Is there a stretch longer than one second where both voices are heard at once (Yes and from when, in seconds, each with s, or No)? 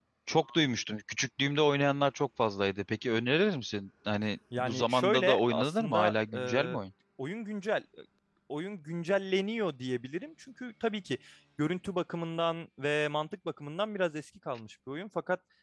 Yes, from 4.5 s